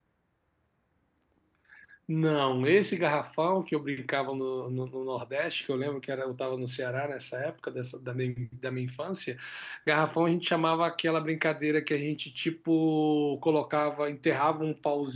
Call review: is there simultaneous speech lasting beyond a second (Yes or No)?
No